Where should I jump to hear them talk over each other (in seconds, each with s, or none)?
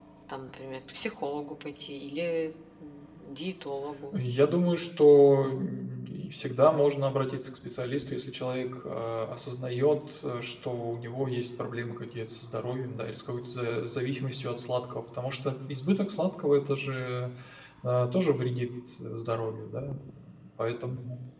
none